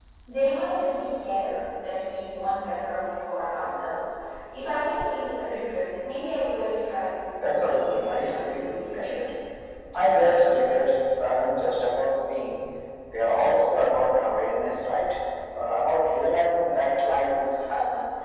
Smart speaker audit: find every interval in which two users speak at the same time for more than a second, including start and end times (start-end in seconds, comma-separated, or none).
7.5-9.2